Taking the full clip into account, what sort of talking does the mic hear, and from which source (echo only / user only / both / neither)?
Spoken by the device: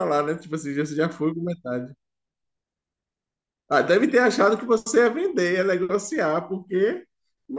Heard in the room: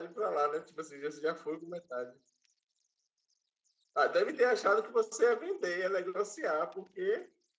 echo only